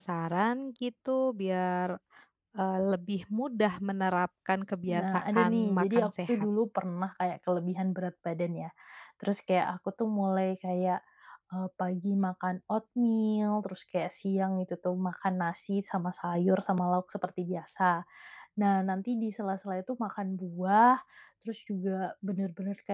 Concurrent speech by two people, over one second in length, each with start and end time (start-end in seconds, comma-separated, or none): 4.9-6.5